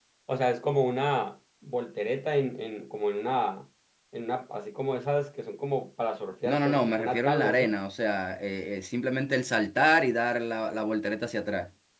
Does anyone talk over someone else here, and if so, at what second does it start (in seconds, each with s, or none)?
6.5 s